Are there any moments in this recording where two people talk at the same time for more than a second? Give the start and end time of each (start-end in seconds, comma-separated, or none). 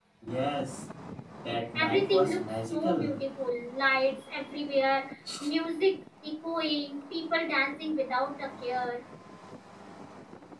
1.7-3.2